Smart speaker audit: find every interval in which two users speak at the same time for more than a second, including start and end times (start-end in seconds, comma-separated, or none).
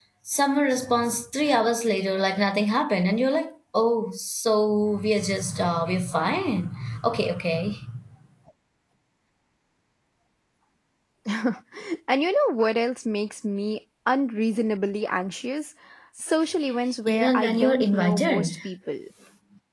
17.1-18.5